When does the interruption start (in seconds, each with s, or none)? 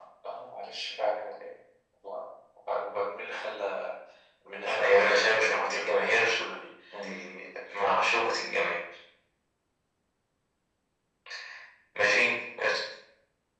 4.7 s